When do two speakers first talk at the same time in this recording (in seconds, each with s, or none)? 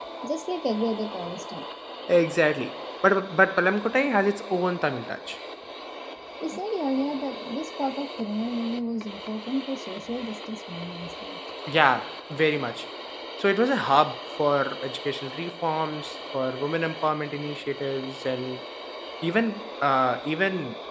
none